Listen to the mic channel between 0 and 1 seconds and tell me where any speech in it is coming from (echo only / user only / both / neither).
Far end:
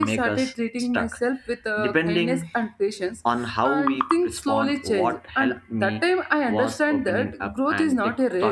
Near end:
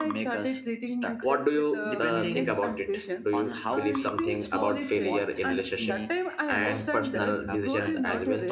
echo only